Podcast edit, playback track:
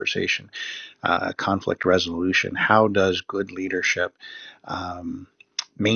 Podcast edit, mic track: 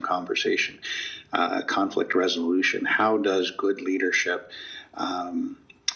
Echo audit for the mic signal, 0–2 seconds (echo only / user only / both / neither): echo only